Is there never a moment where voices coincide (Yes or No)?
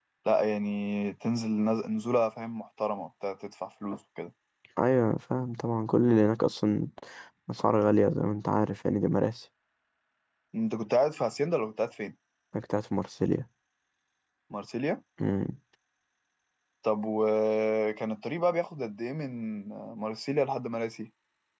Yes